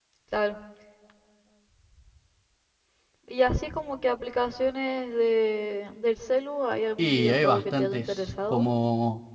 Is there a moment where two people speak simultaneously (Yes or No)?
Yes